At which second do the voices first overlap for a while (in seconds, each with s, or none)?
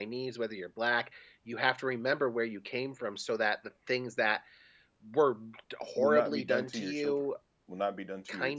6.0 s